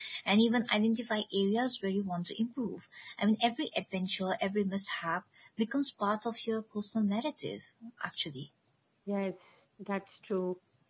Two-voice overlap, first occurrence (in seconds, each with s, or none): none